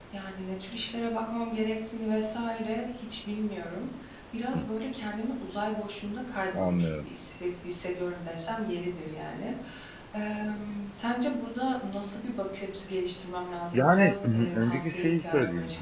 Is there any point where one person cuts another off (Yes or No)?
Yes